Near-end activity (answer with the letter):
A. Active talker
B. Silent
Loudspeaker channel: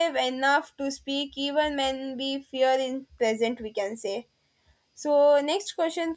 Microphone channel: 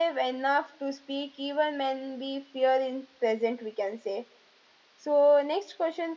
B